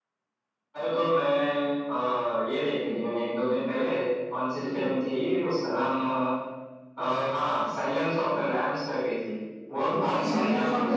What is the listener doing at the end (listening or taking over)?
taking over